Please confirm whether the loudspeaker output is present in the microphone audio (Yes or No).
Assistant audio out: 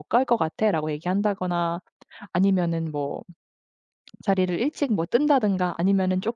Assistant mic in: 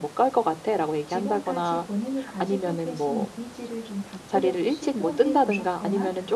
Yes